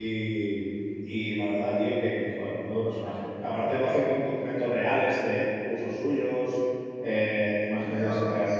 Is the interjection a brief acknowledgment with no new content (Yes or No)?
No